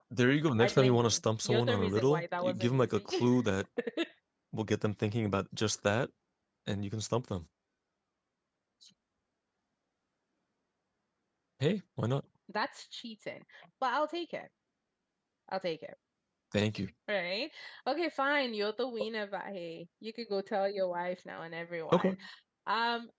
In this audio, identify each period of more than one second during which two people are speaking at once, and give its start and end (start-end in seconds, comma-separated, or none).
0.6-3.2